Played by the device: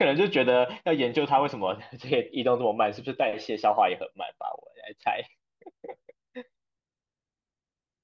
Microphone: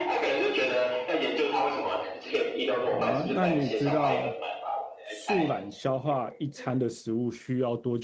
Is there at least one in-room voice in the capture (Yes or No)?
Yes